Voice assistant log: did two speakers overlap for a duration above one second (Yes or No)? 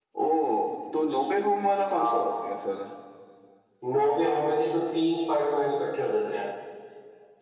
No